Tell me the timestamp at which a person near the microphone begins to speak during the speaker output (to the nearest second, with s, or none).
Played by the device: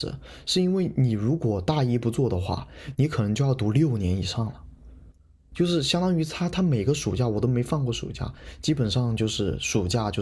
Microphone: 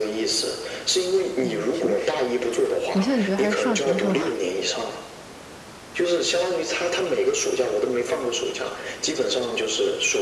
1 s